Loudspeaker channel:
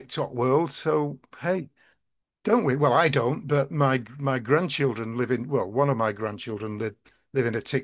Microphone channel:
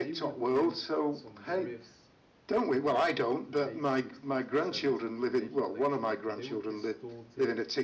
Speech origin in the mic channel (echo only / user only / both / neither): both